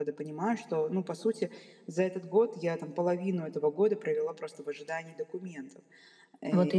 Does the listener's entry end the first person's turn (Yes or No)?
No